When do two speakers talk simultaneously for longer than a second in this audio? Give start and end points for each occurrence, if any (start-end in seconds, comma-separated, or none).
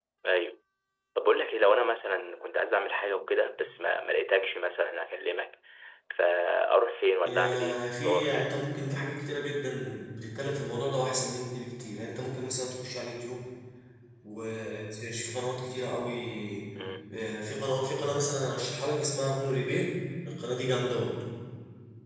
7.3-8.5